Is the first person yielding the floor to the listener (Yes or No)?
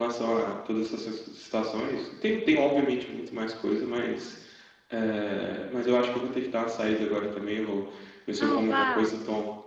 No